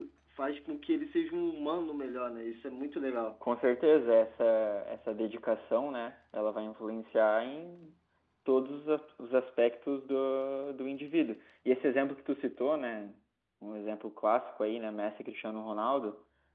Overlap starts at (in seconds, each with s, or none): none